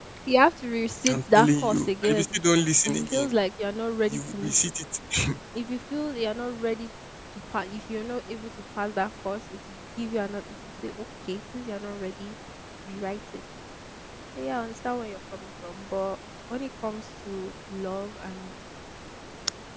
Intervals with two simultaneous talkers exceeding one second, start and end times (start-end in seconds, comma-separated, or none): 1.1-2.4